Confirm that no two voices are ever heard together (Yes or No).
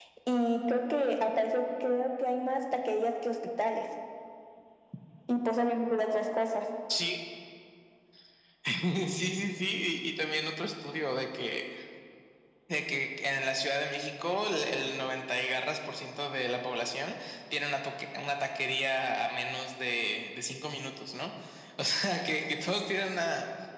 Yes